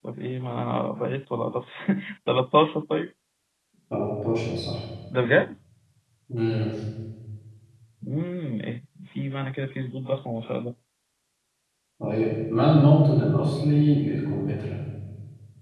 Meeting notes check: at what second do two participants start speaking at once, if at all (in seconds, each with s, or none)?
none